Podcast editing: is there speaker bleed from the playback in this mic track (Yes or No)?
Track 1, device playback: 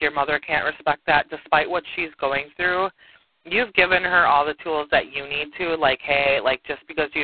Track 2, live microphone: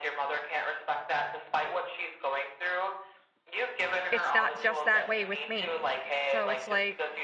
Yes